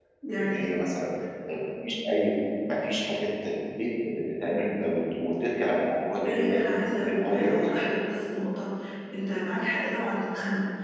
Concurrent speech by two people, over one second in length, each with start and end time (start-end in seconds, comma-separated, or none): 6.2-7.8